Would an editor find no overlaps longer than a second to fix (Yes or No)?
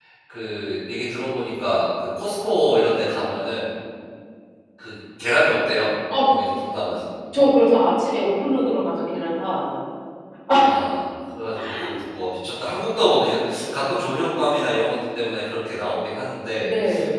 Yes